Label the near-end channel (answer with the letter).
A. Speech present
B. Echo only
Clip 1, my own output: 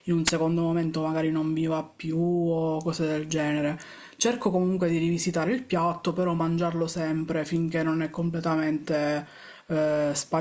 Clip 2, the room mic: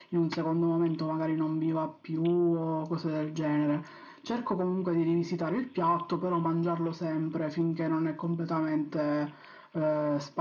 B